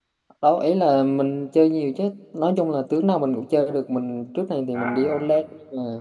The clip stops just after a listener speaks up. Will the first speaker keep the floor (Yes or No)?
Yes